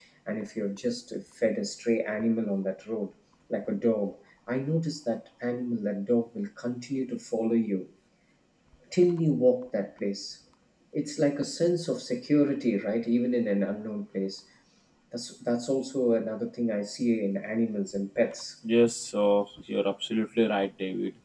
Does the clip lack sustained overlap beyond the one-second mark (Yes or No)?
Yes